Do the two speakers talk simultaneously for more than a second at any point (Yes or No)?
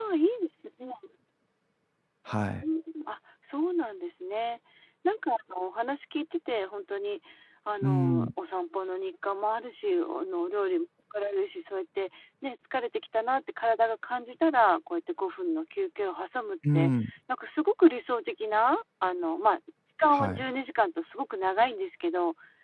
No